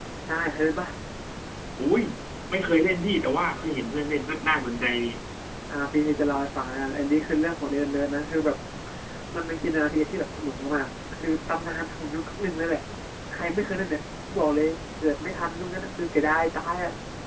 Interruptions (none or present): none